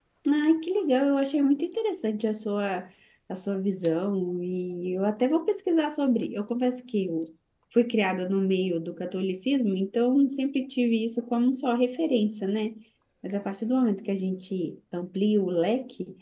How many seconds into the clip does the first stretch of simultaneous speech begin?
none

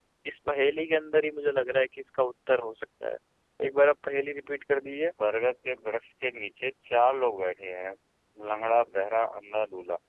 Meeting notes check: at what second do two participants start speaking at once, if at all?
none

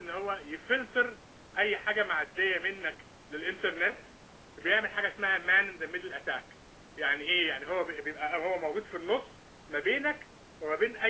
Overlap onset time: none

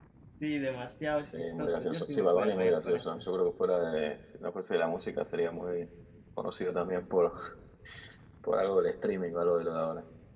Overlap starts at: 1.3 s

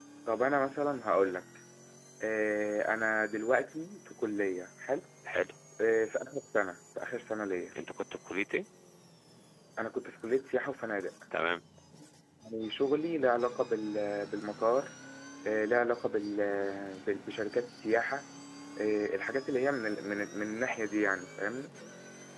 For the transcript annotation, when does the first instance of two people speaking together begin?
none

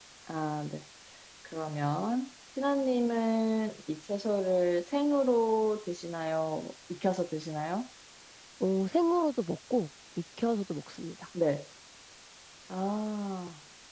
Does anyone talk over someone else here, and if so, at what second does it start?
none

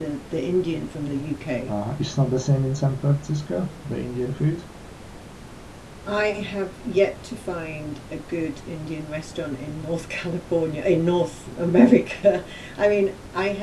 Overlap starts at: none

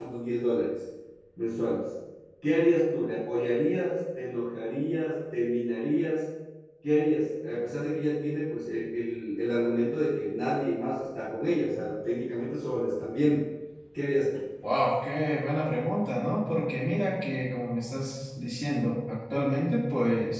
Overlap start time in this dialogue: none

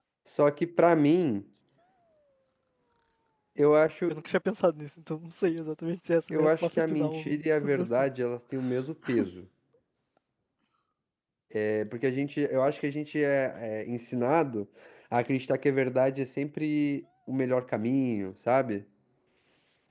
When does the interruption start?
6.3 s

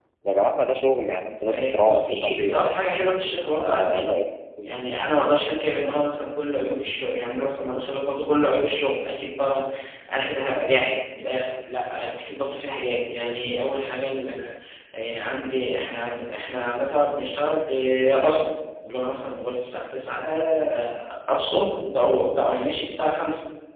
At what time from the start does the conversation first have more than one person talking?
1.4 s

